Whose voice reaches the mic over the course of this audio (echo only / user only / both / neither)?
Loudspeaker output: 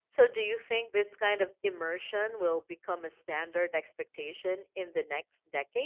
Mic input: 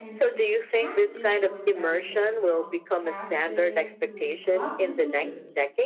both